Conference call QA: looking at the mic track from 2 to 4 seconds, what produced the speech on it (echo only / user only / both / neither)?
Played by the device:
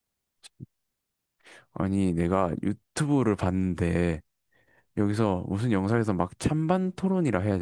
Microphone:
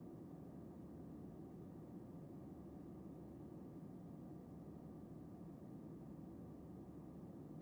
neither